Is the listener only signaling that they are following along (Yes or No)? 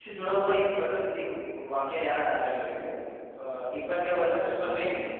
Yes